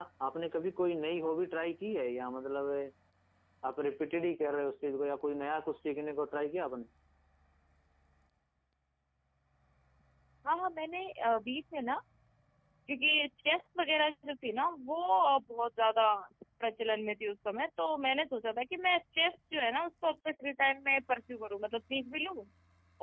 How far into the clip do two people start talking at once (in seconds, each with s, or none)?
none